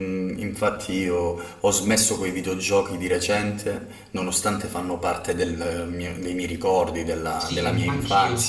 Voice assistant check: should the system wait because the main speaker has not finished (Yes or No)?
No